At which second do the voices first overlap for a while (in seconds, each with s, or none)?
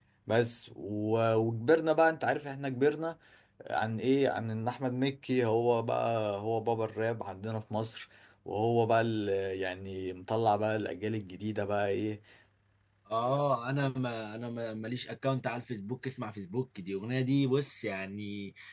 none